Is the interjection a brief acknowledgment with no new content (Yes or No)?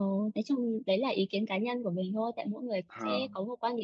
Yes